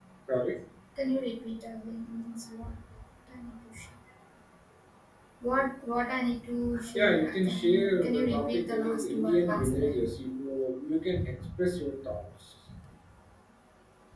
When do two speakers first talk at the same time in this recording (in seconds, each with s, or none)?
6.9 s